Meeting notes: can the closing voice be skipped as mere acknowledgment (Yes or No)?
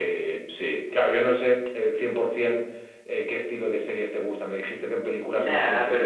No